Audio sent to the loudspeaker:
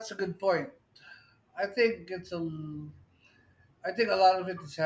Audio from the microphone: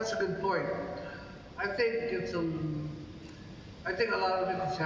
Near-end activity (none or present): none